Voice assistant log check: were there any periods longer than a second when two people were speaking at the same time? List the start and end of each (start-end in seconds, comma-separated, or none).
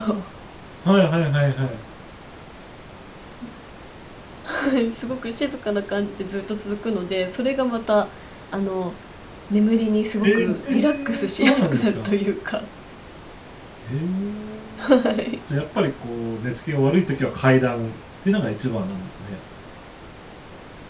10.2-12.1